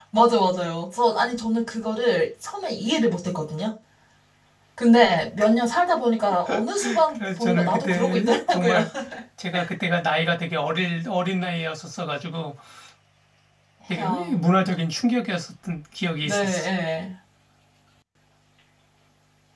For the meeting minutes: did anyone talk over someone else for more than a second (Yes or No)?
Yes